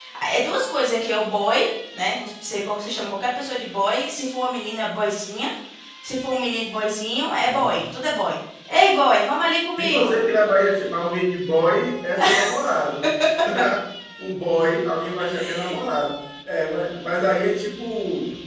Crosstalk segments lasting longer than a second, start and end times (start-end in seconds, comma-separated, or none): none